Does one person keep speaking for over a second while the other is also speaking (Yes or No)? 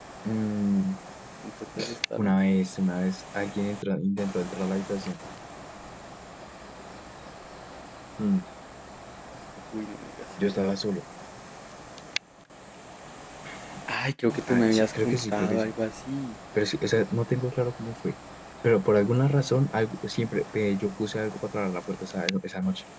Yes